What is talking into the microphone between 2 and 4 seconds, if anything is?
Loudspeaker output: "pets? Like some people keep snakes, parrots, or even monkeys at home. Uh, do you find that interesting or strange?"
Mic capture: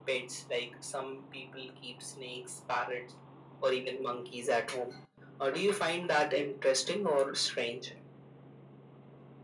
echo only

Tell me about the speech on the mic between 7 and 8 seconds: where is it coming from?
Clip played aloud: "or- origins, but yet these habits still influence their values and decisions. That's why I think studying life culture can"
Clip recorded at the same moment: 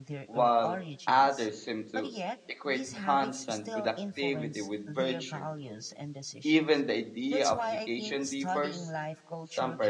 both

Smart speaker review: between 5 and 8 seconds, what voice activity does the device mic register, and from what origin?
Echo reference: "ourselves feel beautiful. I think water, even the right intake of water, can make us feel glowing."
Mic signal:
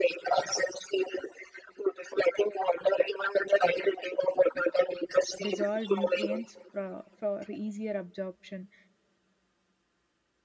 both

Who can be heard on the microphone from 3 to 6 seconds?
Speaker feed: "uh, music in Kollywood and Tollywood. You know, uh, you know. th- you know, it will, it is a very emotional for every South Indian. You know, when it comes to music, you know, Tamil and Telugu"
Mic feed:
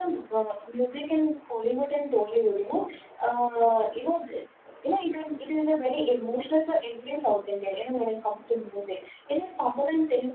echo only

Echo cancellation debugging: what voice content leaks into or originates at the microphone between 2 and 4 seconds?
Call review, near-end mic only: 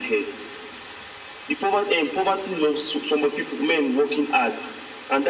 echo only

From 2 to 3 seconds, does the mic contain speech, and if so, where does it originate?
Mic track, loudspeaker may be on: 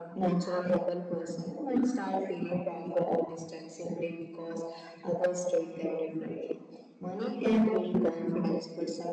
echo only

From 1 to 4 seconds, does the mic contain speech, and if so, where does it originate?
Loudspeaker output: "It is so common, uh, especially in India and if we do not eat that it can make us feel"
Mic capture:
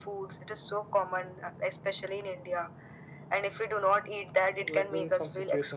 echo only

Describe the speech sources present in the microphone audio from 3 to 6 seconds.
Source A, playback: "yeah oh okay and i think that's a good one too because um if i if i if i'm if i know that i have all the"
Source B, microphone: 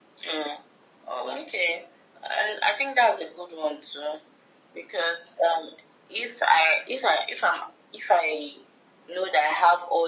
echo only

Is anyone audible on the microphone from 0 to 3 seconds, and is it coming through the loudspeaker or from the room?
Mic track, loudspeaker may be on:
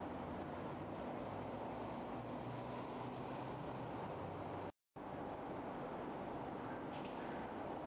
neither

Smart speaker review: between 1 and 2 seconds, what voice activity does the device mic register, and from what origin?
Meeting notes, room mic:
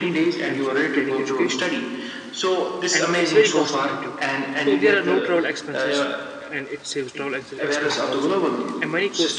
both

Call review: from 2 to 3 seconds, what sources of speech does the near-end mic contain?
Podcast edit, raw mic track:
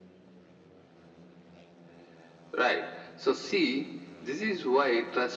echo only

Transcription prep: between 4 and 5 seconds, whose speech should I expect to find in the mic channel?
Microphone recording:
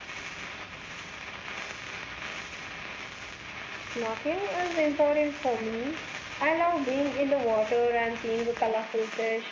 echo only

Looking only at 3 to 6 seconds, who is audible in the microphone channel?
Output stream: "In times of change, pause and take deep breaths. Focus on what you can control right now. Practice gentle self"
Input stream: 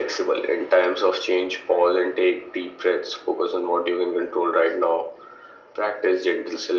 echo only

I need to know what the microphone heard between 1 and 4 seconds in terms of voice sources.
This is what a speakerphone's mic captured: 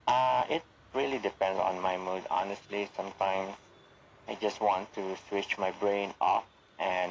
echo only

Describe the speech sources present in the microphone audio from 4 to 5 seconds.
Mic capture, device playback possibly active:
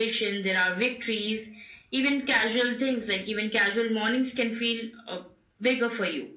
echo only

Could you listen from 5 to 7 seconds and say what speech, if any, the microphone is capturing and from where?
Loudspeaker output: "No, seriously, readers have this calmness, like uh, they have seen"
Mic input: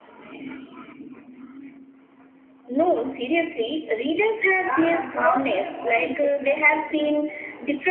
both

